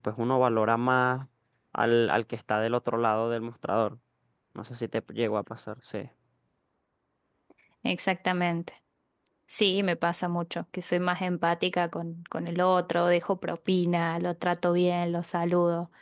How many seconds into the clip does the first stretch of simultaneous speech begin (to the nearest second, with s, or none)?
none